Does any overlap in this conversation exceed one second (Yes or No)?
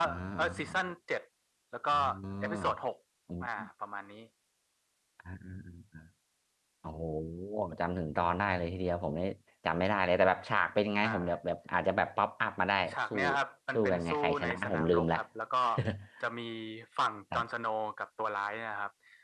Yes